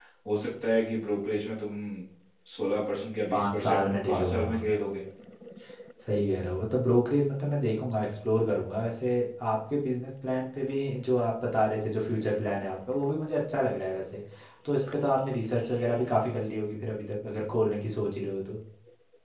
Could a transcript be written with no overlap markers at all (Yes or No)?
No